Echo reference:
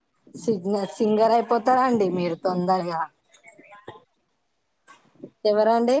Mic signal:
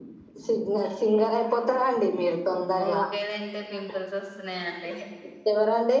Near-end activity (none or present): present